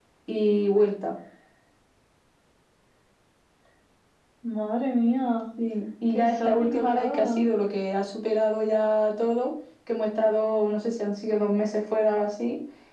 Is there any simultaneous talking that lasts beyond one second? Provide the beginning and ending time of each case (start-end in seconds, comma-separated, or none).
6.1-7.4